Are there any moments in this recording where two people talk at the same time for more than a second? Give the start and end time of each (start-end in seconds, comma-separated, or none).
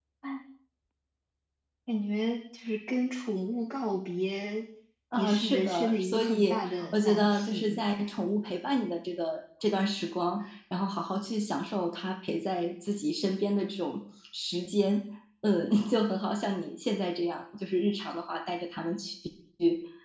5.2-7.8